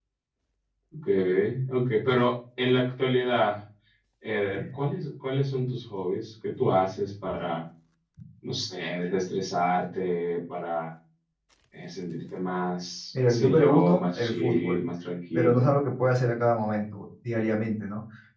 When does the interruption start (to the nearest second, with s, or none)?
13 s